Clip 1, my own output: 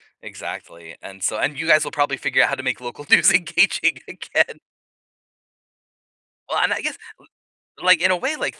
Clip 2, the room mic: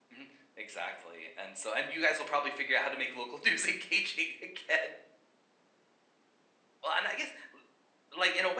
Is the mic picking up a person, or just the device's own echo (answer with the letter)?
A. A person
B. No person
B